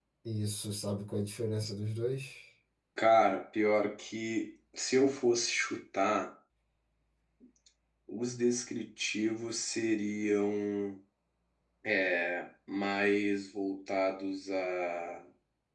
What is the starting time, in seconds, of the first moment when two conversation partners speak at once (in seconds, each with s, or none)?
none